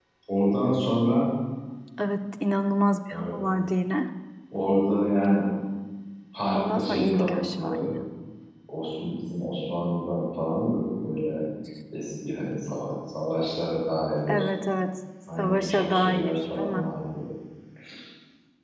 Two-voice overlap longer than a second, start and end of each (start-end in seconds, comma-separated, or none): 6.5-7.9, 15.4-16.9